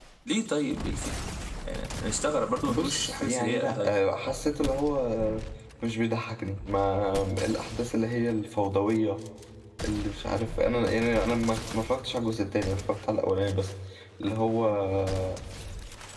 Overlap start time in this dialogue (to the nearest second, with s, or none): 3 s